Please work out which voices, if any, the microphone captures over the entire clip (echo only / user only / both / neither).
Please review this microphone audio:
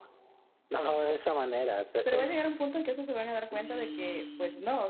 both